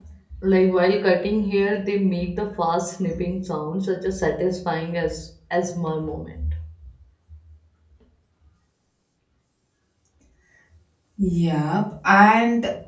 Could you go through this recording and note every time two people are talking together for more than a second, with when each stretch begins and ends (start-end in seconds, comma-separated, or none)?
none